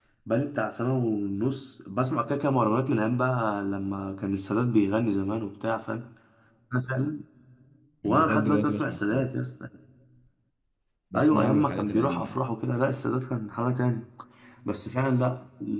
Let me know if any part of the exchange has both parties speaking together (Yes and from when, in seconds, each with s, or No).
Yes, from 8.0 s